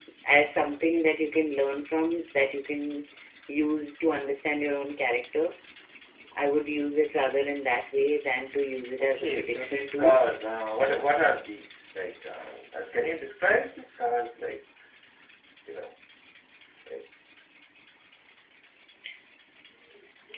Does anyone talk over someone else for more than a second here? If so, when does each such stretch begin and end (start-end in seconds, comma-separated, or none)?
9.0-10.2